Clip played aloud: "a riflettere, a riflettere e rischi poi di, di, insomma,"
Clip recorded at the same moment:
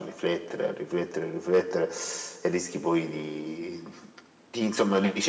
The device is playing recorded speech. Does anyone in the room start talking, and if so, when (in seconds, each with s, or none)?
none